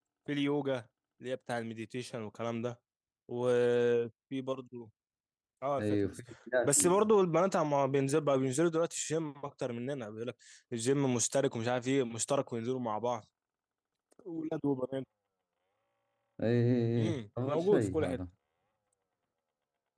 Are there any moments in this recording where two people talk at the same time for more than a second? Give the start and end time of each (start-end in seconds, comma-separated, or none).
17.0-18.2